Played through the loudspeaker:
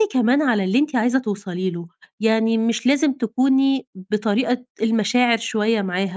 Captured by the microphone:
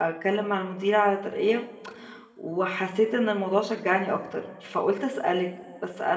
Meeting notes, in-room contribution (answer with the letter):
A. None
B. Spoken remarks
B